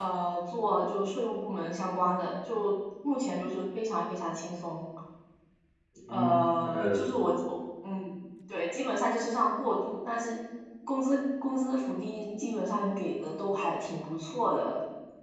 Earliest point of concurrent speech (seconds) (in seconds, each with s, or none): 6.1 s